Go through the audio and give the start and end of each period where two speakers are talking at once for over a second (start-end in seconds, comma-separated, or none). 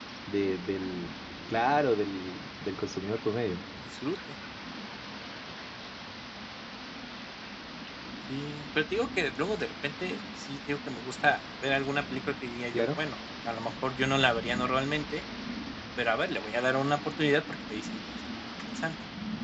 none